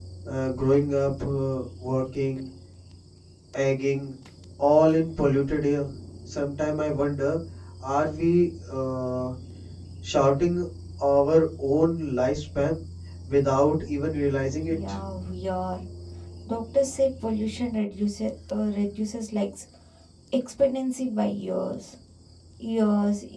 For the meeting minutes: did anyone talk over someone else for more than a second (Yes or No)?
No